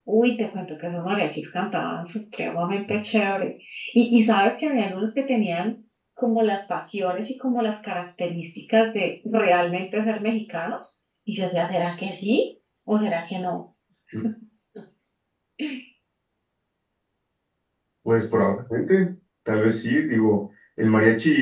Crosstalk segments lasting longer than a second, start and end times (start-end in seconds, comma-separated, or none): none